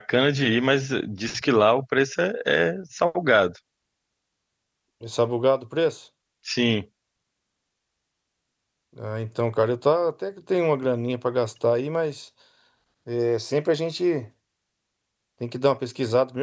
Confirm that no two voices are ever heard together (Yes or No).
Yes